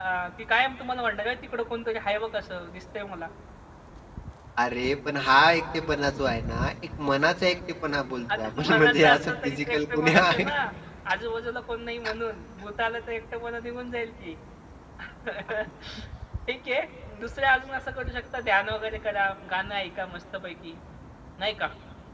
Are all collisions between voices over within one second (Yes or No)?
No